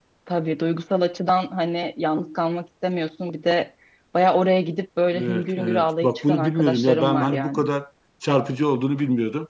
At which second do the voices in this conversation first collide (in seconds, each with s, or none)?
5.1 s